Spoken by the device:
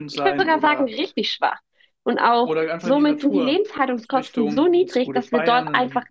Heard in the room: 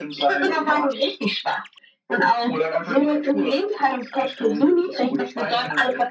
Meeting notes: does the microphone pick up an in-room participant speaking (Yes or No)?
No